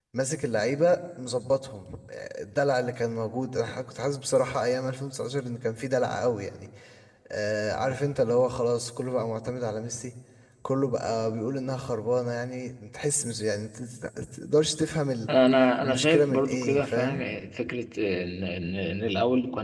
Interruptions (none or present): present